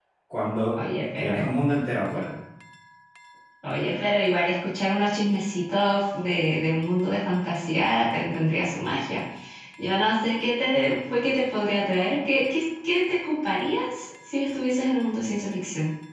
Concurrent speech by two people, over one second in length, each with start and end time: none

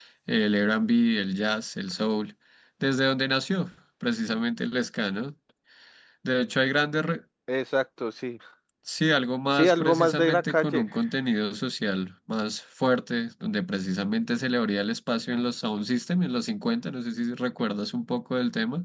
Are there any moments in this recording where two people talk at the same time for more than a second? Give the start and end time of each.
9.5-10.8

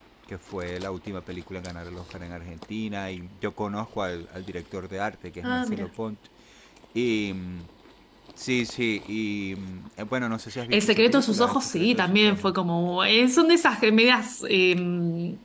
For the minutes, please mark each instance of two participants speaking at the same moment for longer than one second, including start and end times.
10.7-12.5

